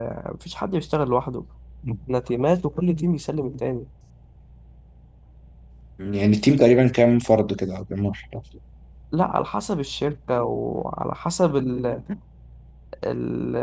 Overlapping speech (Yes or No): No